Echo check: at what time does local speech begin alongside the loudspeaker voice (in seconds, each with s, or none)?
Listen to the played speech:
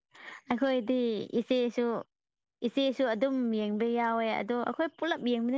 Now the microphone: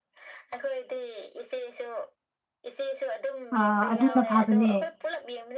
3.6 s